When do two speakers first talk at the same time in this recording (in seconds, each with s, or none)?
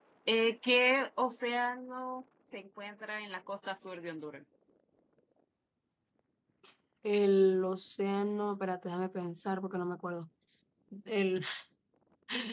none